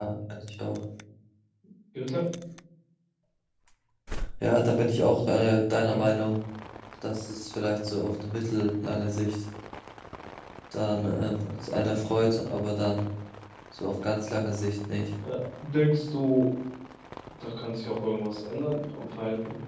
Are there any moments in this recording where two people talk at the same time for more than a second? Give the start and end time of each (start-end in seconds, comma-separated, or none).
none